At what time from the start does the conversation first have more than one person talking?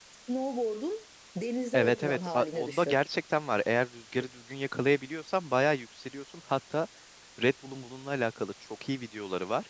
1.7 s

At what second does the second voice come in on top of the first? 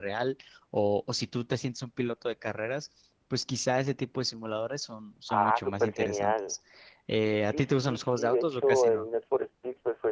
5.3 s

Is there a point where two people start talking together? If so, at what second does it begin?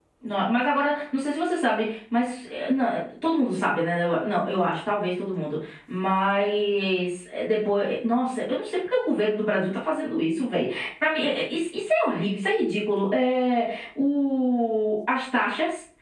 none

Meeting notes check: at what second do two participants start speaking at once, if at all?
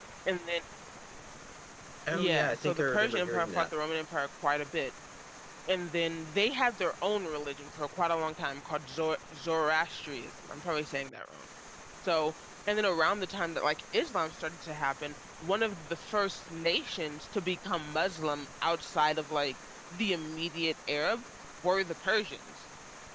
2.1 s

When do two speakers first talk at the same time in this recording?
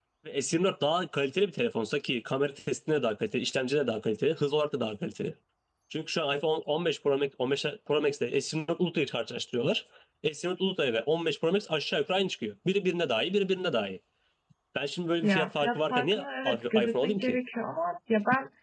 15.2 s

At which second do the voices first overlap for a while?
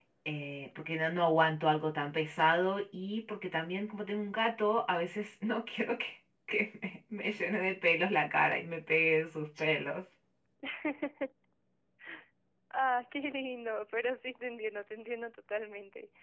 none

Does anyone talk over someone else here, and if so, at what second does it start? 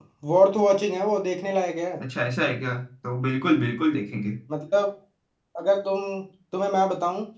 none

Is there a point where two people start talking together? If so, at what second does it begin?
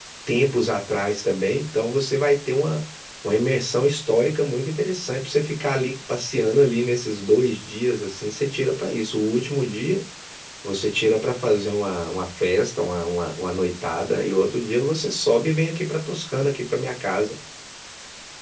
none

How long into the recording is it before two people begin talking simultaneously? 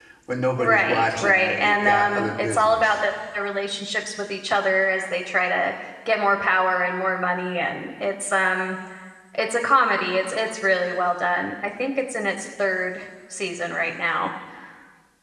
0.6 s

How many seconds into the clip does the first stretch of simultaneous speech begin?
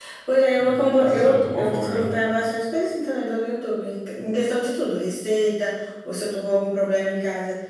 0.6 s

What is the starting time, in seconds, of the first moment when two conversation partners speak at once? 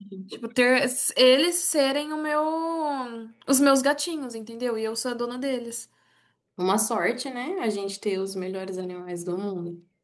none

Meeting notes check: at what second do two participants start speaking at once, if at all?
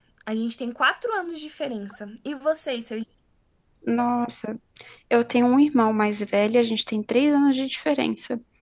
none

